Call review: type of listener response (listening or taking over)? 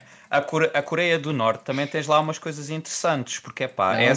taking over